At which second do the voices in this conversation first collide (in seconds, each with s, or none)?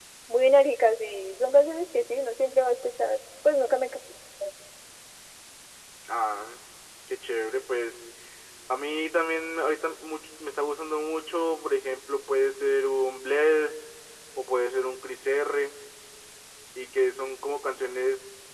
none